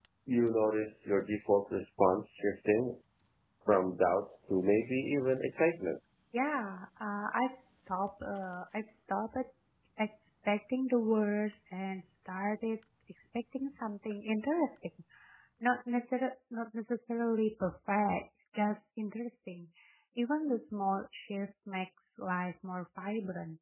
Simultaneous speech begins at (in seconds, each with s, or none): none